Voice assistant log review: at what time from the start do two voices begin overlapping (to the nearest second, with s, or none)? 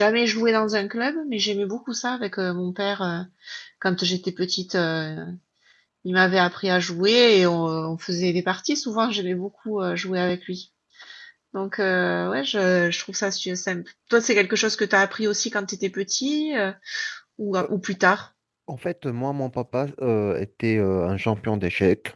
none